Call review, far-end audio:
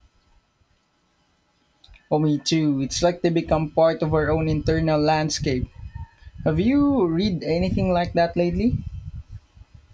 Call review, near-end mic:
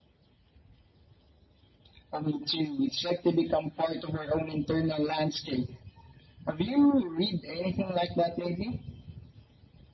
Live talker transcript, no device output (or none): none